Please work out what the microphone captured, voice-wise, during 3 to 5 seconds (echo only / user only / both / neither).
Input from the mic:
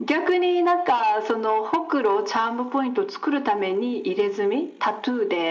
echo only